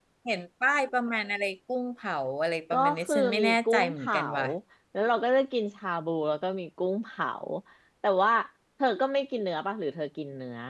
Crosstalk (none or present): present